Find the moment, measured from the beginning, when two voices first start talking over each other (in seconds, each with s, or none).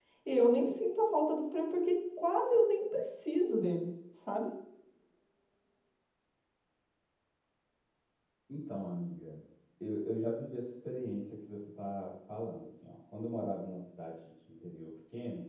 none